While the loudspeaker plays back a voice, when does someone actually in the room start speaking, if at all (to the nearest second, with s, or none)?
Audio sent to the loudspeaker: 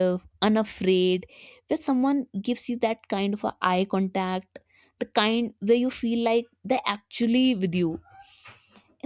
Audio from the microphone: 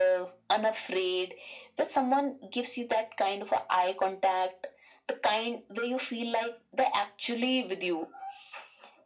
none